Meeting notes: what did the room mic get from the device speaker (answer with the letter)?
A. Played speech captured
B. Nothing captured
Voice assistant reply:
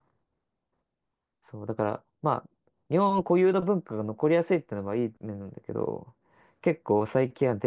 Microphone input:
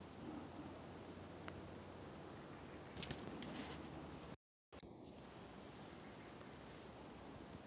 B